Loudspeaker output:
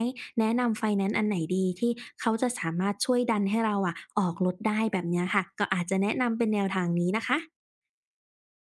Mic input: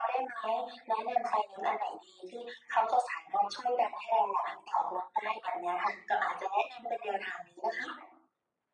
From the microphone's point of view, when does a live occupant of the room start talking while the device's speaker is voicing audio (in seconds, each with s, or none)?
none